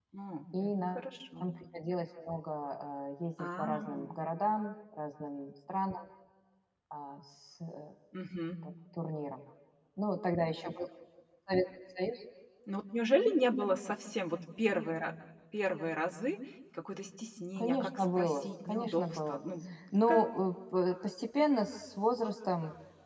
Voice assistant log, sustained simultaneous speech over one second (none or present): present